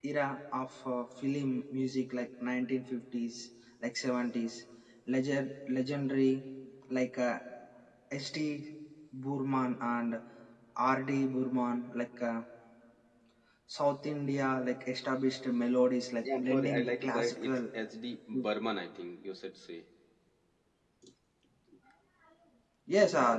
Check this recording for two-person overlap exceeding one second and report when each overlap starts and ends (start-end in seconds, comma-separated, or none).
16.2-17.6